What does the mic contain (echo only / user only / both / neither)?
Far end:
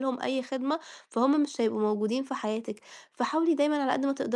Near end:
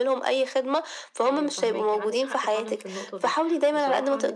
both